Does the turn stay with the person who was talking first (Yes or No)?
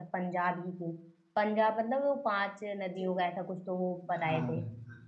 No